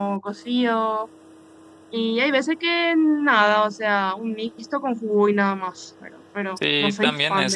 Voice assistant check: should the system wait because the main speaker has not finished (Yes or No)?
No